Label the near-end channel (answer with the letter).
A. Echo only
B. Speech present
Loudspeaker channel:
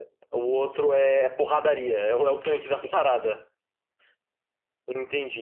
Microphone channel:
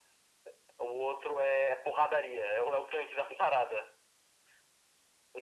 A